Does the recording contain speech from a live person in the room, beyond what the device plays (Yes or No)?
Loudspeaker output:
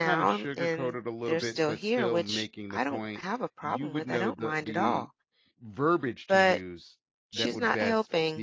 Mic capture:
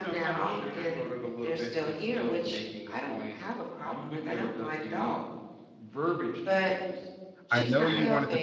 Yes